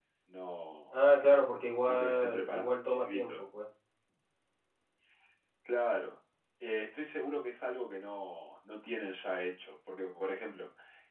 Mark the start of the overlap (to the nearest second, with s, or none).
2 s